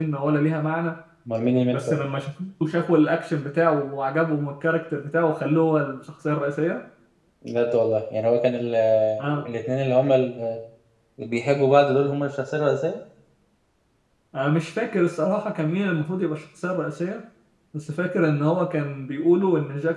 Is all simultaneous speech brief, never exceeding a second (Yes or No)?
Yes